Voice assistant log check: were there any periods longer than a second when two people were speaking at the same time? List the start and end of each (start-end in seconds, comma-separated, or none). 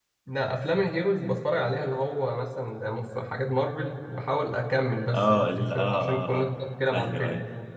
5.1-6.6